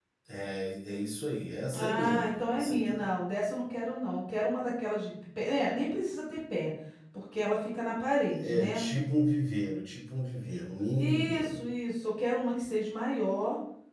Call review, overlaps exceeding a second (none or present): present